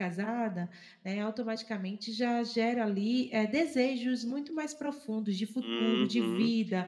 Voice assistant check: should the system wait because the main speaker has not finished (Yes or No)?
No